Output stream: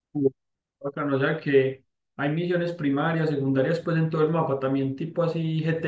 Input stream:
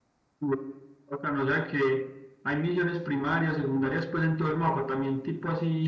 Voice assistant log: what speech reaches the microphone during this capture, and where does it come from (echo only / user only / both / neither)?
echo only